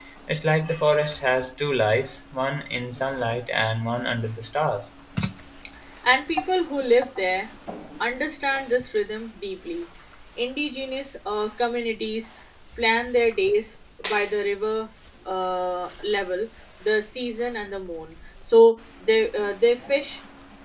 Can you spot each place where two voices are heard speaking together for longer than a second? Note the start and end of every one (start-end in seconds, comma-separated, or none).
none